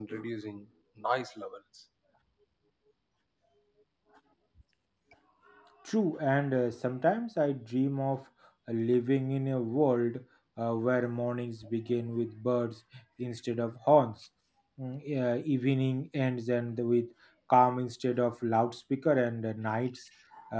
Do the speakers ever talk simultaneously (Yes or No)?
No